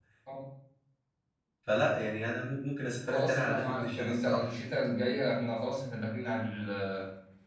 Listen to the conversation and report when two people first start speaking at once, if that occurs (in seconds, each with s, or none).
3.1 s